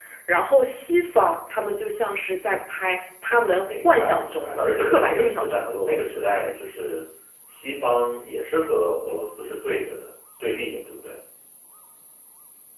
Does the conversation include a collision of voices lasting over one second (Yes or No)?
Yes